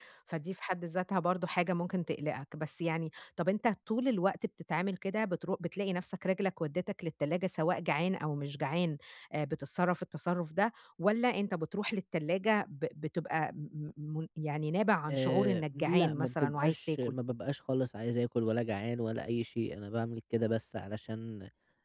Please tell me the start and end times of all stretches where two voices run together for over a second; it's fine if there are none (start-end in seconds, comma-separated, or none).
15.1-17.1